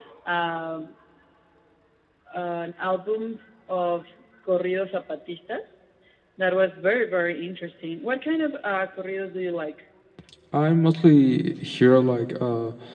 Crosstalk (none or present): none